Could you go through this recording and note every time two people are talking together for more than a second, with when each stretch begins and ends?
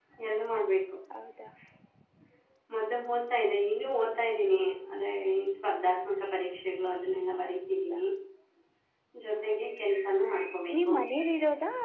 none

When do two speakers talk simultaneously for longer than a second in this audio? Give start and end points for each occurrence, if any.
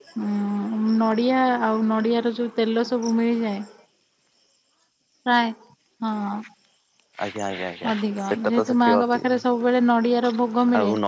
7.9-9.3

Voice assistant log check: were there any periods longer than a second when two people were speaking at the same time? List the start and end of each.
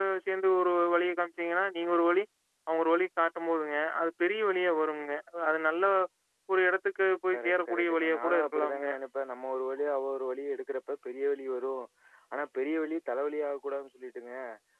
7.3-8.9

